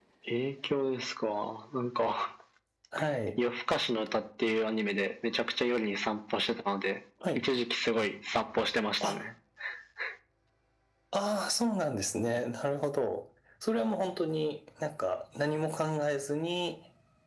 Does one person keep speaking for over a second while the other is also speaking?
No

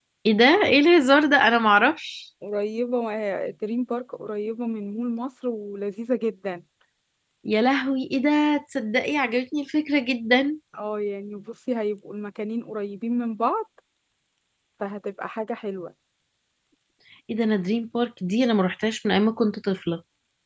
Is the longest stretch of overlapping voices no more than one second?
Yes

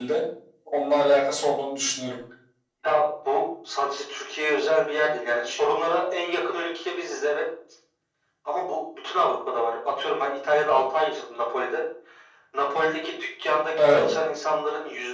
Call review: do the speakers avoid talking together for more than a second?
Yes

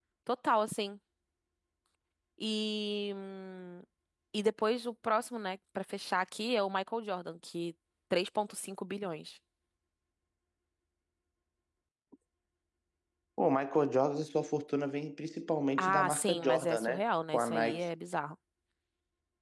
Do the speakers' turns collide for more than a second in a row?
Yes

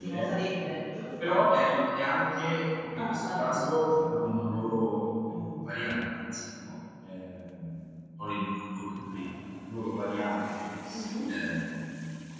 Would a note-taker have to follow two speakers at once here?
Yes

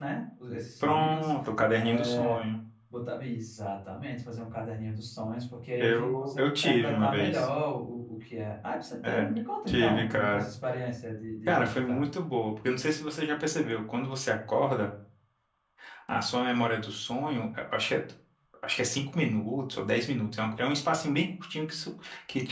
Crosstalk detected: Yes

